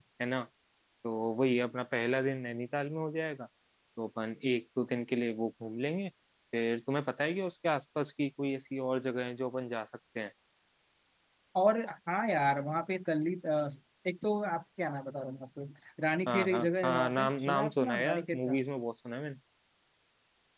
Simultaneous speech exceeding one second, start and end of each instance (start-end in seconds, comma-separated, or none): 16.3-18.6